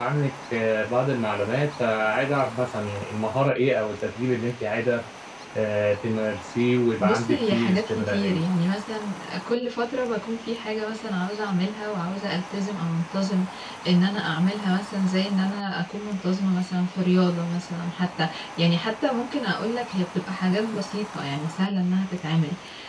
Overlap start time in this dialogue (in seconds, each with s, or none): 7.0 s